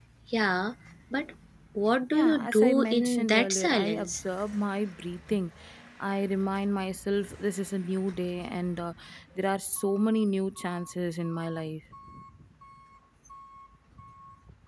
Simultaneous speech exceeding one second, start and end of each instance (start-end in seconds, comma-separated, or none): 2.1-4.2